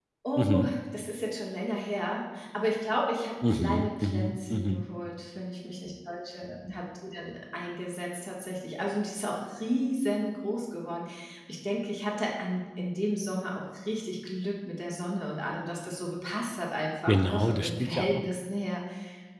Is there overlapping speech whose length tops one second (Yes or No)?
Yes